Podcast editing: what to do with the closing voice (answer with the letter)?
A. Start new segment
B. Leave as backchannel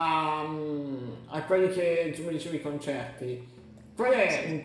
B